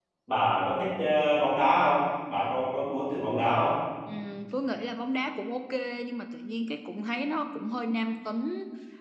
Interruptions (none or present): none